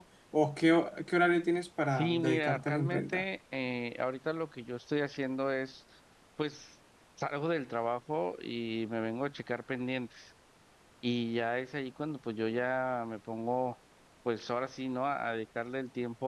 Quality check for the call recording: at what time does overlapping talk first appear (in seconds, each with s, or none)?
1.9 s